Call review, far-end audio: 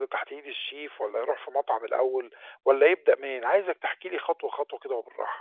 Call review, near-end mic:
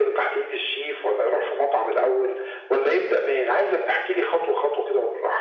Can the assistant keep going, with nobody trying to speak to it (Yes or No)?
Yes